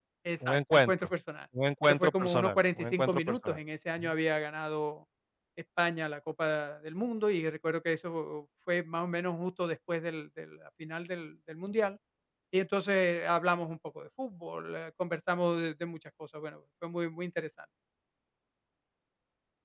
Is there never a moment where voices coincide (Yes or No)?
No